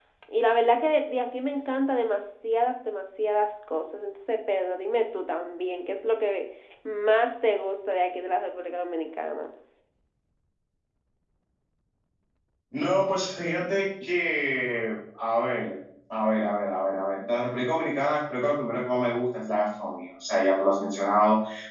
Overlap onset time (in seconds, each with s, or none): none